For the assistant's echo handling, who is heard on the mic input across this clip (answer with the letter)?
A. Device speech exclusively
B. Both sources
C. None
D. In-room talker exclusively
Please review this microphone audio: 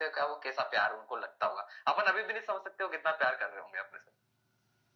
A